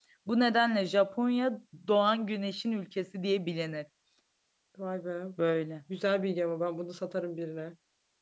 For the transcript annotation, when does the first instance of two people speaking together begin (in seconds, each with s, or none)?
none